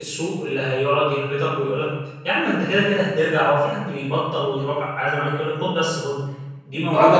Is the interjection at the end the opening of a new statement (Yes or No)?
No